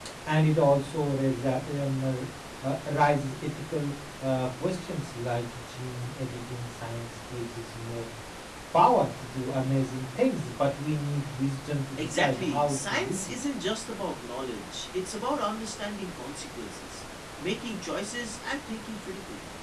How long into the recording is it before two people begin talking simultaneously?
12 s

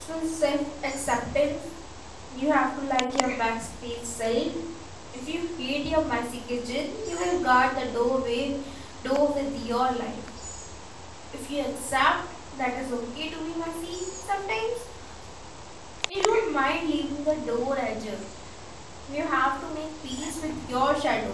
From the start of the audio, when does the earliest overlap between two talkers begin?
none

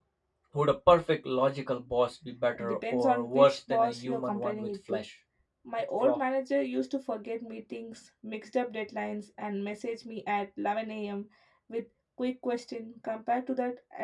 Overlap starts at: 3 s

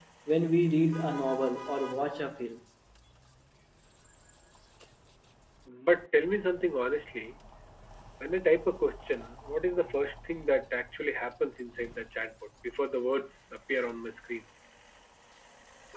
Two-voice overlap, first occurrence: none

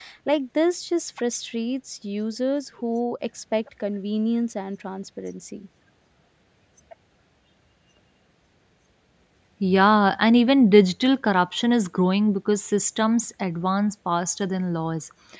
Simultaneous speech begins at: none

